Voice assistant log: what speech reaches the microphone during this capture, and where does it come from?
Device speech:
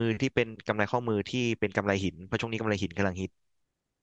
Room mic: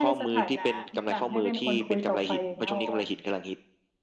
both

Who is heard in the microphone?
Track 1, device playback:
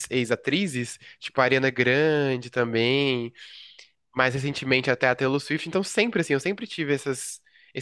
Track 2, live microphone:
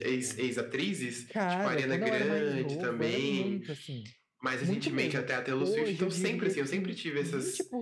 both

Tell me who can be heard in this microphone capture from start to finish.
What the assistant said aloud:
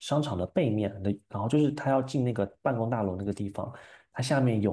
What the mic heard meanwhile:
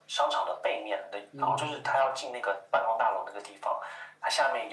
both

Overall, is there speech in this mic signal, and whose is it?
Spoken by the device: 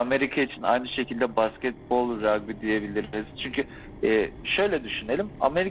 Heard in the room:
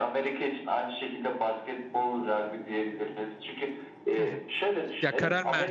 both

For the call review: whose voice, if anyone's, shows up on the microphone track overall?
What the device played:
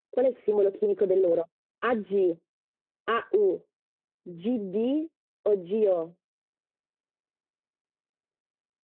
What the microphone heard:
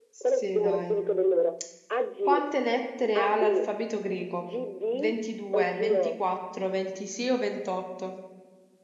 both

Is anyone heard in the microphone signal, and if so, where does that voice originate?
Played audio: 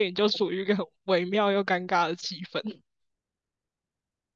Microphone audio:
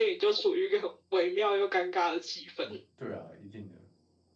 both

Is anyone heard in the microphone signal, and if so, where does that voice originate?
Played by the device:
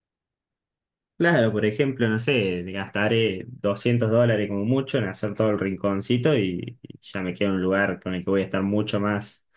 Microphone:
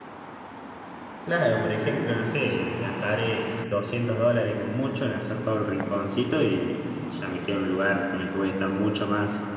echo only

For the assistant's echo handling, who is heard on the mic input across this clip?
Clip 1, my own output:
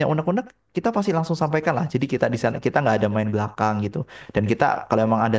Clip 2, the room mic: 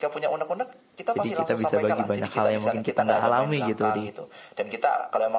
both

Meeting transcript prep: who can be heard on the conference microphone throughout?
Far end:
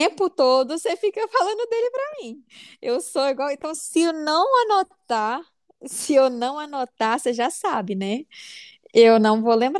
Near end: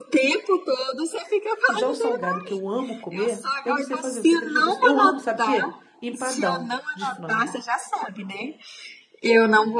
both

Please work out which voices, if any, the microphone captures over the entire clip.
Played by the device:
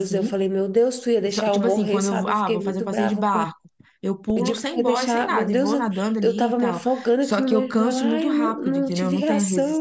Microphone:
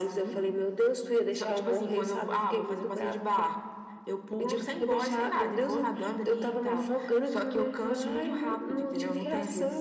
echo only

